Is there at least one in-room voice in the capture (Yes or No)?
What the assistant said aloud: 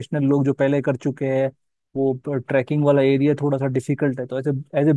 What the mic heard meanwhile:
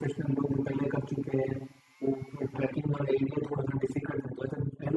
No